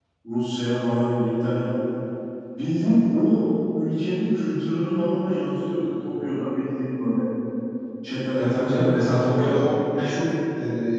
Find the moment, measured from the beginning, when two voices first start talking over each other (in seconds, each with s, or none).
8.4 s